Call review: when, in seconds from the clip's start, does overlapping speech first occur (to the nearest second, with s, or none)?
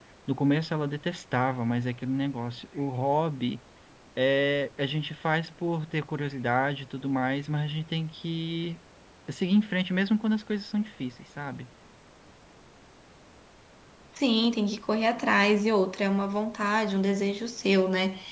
none